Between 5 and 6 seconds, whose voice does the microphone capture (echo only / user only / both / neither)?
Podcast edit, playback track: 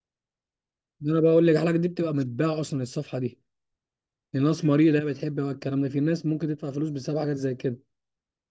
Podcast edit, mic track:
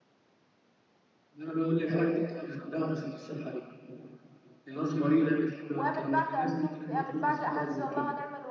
both